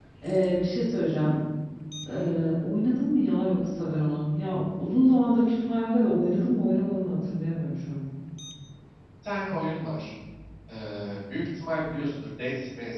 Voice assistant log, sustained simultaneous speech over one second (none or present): none